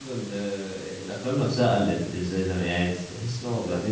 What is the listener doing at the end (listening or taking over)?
listening